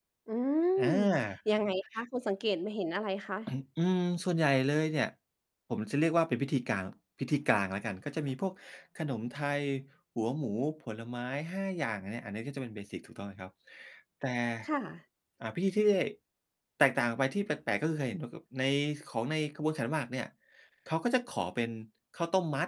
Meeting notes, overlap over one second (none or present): none